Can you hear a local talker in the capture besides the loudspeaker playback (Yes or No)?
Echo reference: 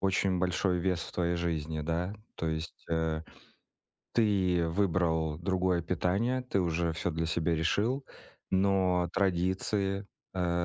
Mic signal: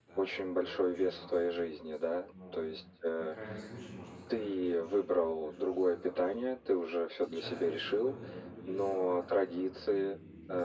Yes